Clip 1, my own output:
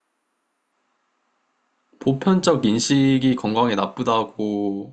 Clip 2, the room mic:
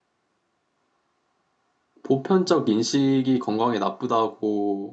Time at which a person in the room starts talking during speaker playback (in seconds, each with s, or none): none